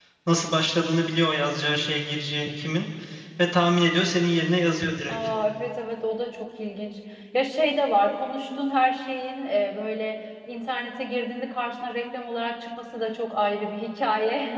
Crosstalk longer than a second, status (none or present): none